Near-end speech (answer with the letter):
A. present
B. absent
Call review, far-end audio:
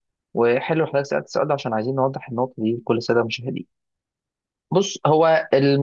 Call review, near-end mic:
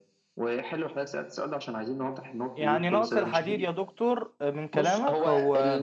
A